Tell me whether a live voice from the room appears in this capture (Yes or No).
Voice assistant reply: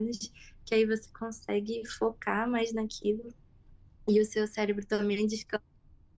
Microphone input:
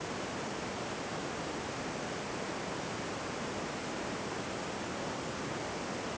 No